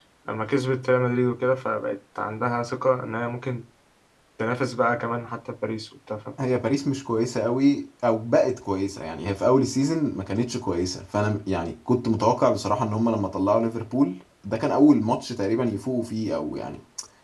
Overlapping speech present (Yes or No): No